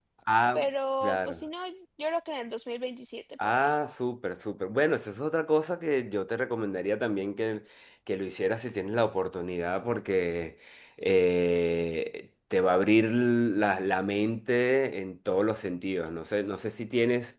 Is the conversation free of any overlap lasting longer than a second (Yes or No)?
Yes